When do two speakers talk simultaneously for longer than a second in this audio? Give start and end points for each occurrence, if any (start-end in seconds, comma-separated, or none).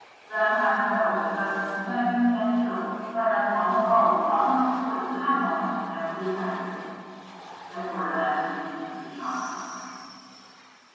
none